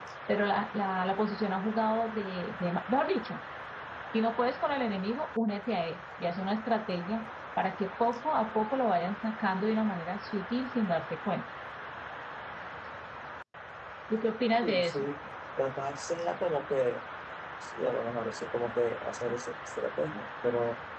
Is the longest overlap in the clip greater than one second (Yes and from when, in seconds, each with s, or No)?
No